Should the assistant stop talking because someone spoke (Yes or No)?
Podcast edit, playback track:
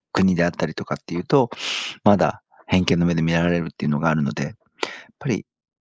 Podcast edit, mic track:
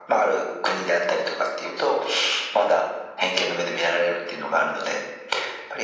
No